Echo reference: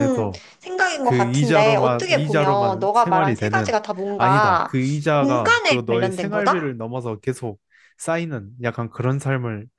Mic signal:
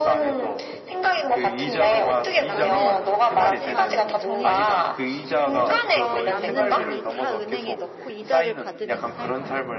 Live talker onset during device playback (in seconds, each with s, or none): 2.4 s